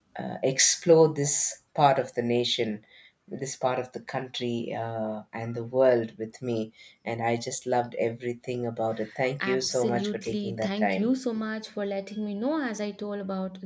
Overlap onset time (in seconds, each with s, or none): 9.4 s